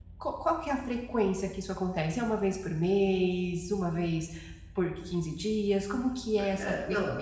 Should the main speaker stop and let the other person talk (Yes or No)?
Yes